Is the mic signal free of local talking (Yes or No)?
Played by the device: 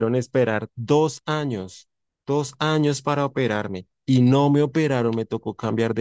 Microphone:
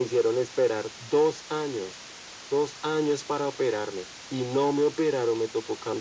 Yes